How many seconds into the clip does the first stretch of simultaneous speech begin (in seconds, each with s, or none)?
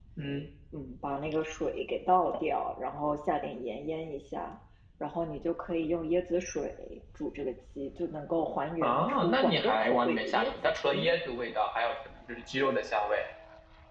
8.8 s